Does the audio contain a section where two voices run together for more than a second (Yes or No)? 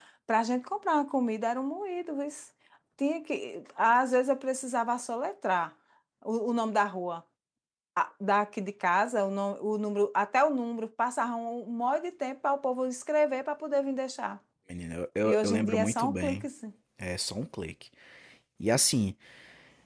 Yes